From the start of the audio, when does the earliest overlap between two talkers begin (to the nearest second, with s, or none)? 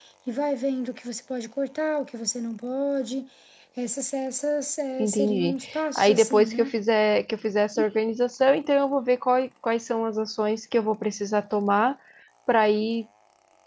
5 s